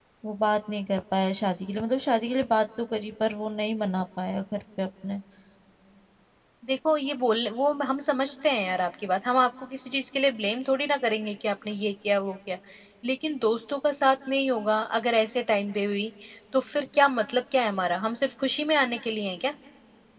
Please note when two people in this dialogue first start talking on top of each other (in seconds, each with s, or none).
none